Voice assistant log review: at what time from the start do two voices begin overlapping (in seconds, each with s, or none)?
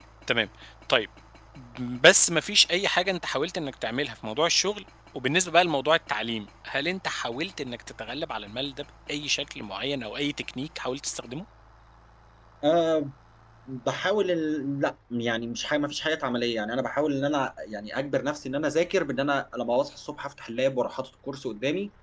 none